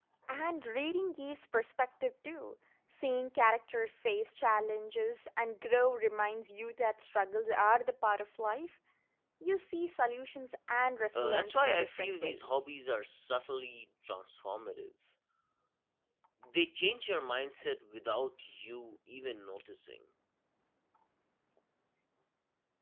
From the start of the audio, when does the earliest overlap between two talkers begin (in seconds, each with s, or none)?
11.2 s